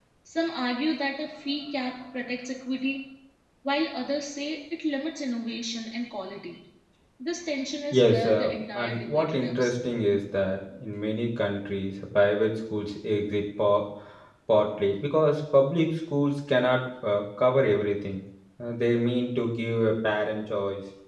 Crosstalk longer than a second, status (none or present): present